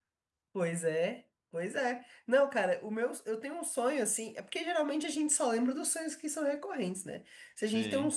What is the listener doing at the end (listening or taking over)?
listening